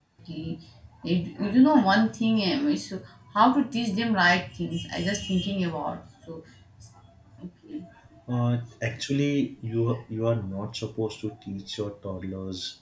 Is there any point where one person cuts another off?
No

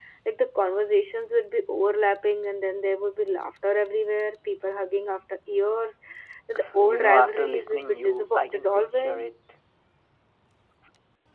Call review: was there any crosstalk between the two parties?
Yes, from 6.8 s

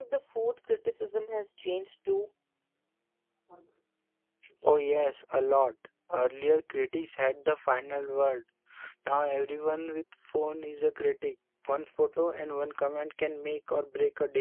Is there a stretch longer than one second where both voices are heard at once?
No

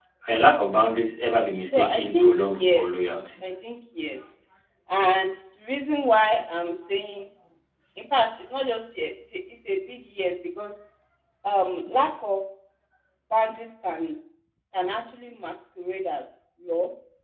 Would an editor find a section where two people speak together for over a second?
Yes, from 1.7 s

